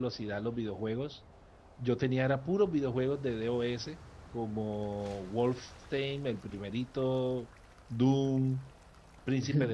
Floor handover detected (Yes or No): No